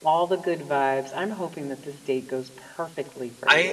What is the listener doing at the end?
taking over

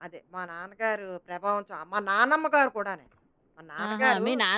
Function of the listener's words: taking over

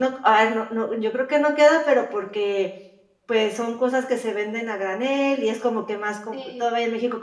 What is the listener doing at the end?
listening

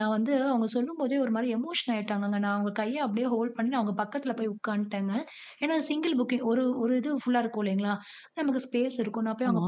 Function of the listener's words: listening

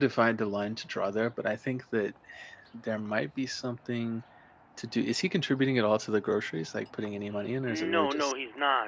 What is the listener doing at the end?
taking over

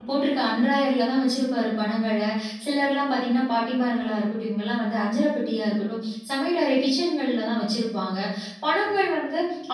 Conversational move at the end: listening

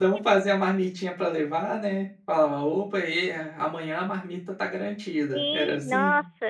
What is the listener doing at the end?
taking over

